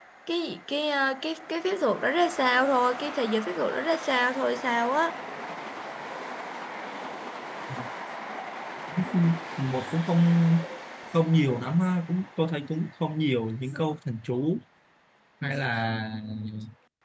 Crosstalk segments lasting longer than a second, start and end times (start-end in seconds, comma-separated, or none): none